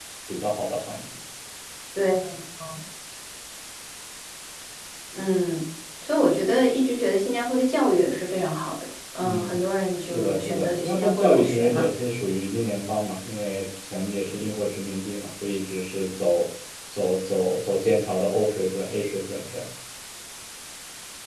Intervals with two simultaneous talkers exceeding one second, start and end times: 10.1-11.9

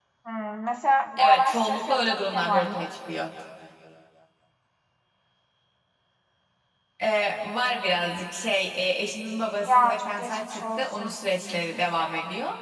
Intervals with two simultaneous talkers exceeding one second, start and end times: 1.2-2.9, 9.7-11.1

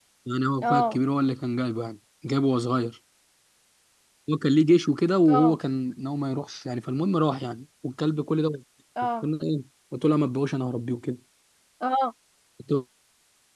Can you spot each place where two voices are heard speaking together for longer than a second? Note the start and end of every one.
none

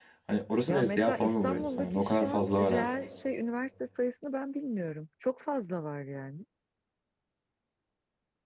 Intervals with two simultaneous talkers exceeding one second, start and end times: 0.7-3.0

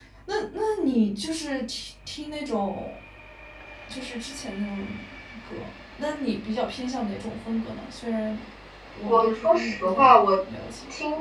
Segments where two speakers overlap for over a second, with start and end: 9.1-10.3

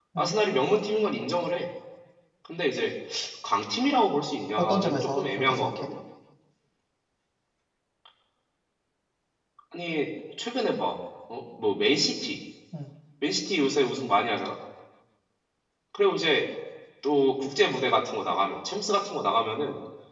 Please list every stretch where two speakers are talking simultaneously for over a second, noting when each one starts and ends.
4.6-5.9

